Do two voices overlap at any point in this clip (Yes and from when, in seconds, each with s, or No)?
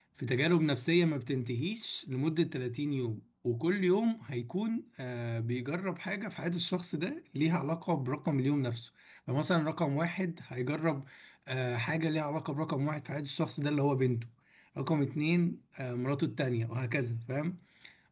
No